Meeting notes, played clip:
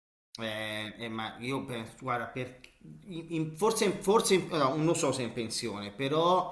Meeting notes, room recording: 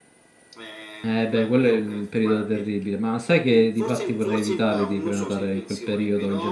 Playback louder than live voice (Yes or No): No